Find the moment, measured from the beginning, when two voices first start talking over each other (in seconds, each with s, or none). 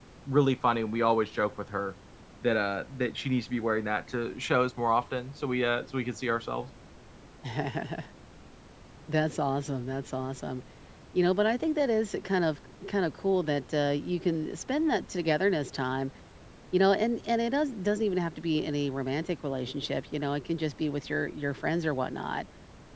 none